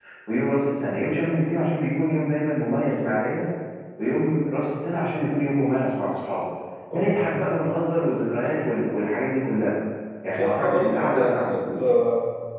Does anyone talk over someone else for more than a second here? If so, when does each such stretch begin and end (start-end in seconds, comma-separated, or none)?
10.2-11.6